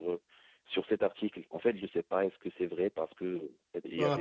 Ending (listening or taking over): taking over